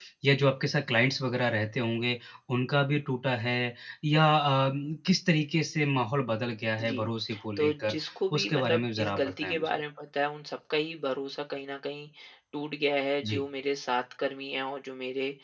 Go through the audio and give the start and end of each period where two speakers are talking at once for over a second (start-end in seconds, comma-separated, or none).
8.4-9.7